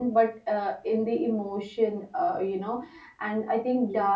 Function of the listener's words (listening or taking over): listening